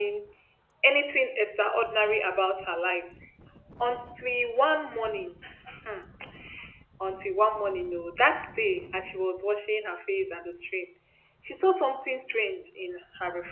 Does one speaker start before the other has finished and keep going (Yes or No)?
No